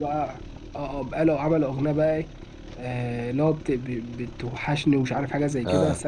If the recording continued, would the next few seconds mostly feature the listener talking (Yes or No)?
No